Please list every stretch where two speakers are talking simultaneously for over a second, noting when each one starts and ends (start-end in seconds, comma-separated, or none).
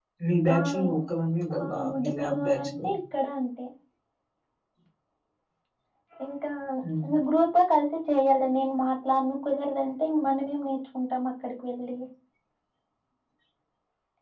1.6-2.8